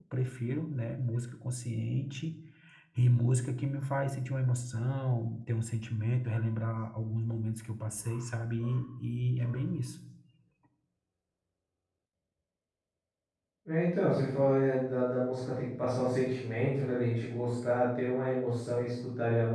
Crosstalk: none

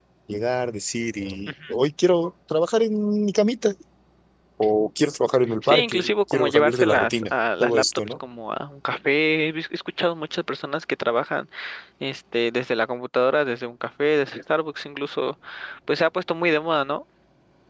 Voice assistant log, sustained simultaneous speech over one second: present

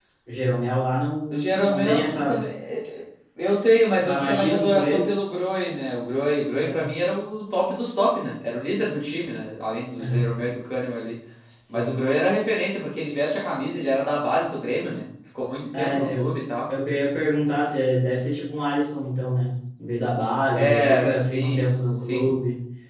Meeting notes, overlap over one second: present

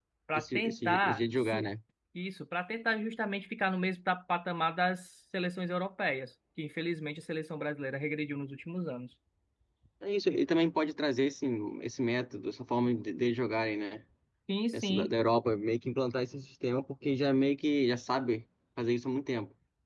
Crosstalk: present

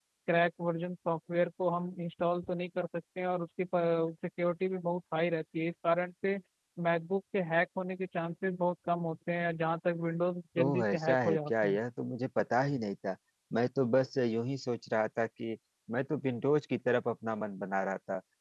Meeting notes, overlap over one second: present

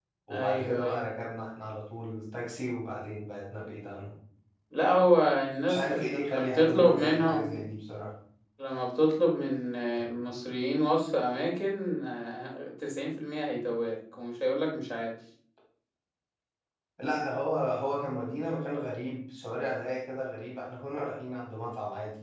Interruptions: present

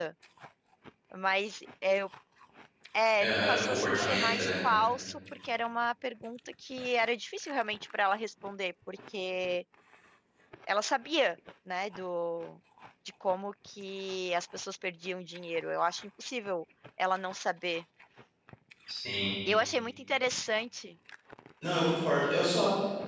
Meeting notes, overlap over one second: present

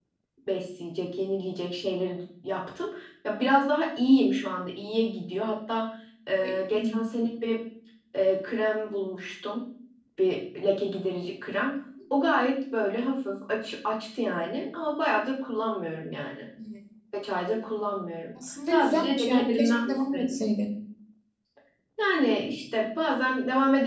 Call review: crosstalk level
present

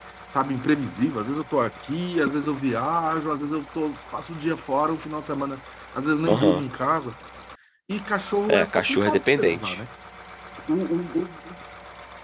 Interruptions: present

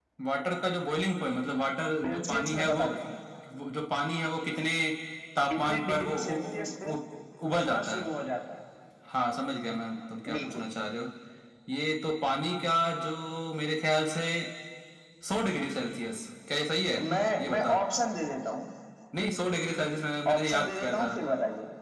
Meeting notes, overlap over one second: present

